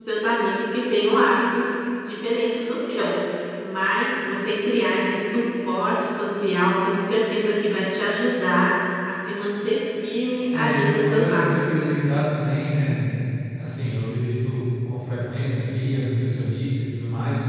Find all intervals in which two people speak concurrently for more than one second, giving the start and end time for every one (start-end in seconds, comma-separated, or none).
10.5-11.8